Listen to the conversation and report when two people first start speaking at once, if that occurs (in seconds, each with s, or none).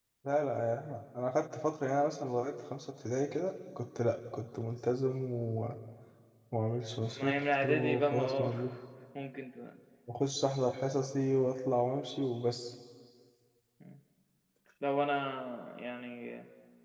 7.0 s